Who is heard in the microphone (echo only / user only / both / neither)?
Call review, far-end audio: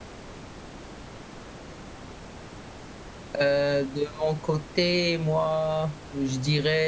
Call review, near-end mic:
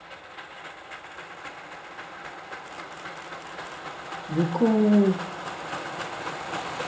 user only